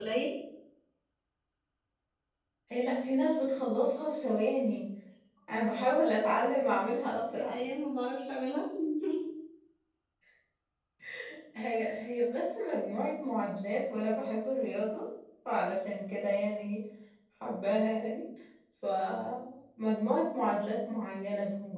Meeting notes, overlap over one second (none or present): none